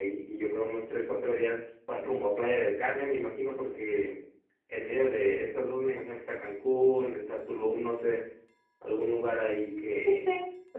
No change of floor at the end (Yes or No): No